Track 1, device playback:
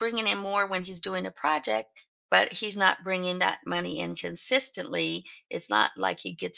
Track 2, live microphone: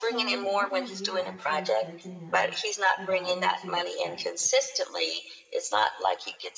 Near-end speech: present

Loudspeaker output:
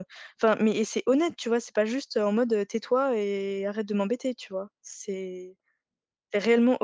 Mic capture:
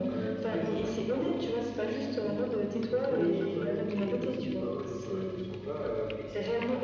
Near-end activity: present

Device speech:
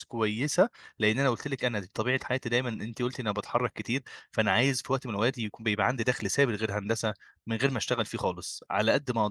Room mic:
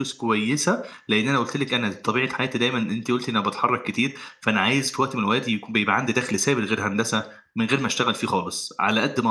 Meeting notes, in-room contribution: none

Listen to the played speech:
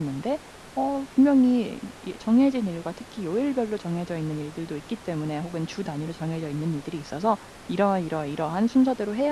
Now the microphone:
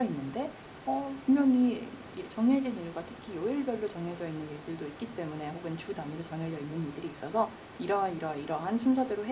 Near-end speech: none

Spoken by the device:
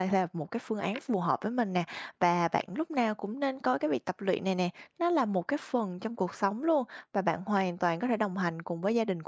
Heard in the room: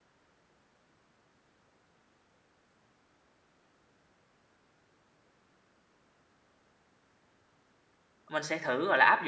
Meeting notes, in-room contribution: present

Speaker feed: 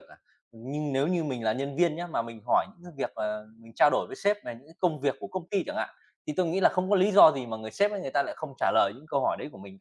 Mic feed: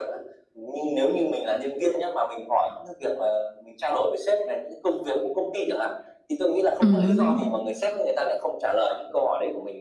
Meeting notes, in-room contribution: present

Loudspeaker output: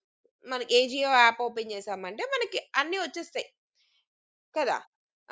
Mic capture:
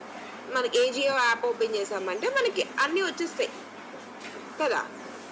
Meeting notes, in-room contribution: none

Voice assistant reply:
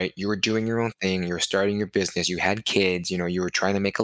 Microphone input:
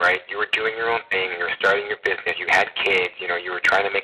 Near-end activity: none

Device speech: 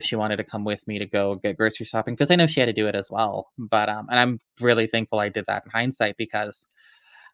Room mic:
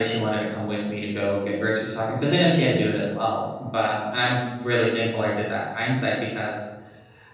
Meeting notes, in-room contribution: none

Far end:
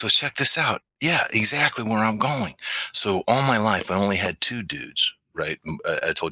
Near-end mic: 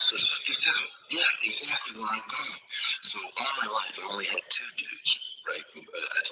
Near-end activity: none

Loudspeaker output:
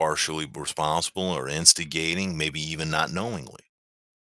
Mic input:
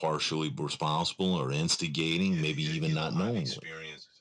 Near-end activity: present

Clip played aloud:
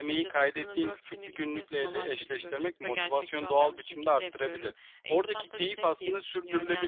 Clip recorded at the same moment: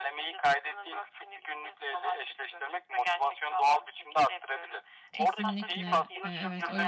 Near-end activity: present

